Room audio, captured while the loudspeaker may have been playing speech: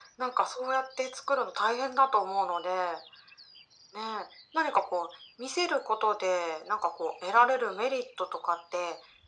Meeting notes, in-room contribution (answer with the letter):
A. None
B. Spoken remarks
A